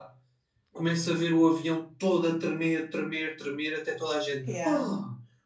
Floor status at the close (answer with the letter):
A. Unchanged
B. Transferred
A